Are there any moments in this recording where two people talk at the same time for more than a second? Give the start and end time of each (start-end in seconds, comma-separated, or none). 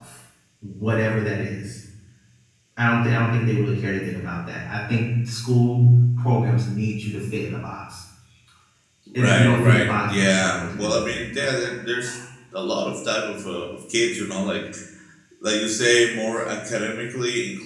9.1-11.2